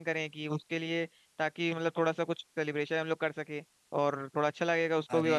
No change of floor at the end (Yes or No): Yes